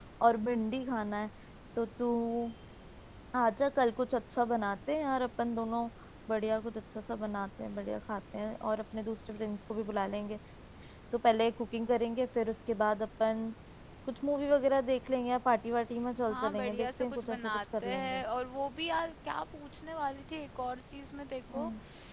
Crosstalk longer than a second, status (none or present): present